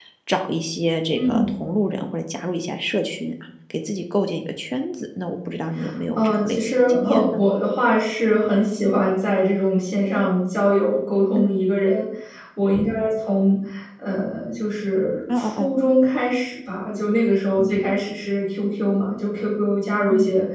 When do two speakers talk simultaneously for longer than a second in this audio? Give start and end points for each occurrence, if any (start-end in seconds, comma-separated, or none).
6.2-7.4